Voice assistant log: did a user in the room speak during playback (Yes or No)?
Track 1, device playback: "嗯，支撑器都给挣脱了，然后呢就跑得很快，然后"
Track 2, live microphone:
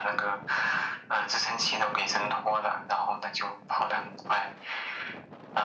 No